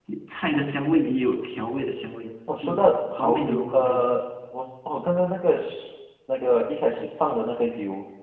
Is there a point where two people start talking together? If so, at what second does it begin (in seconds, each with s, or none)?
2.5 s